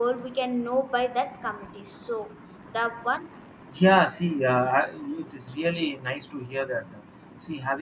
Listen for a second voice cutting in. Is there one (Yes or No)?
No